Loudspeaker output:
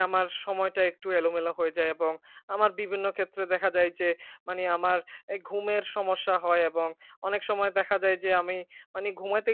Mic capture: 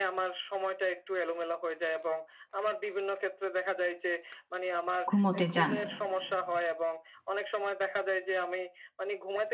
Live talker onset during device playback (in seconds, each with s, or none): 5.1 s